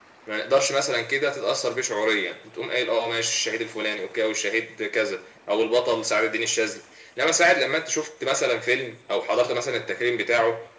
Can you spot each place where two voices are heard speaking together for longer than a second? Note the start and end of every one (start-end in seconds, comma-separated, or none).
none